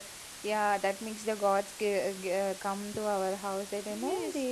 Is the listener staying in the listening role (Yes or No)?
No